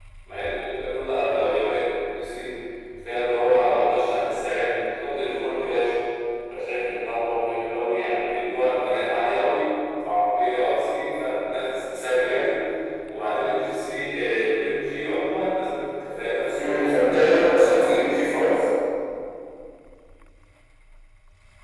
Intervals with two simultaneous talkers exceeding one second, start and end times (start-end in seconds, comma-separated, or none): 16.6-18.1